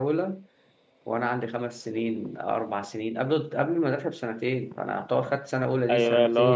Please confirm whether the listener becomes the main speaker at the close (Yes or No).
Yes